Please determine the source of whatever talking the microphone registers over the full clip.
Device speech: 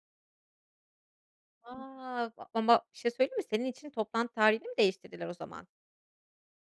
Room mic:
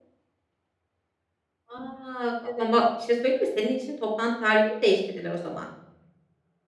both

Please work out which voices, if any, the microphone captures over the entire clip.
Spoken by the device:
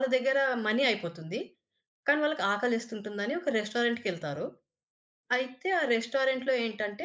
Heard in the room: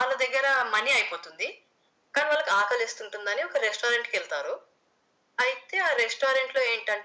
echo only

